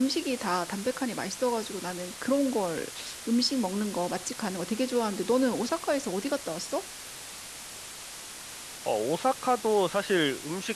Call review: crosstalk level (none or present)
none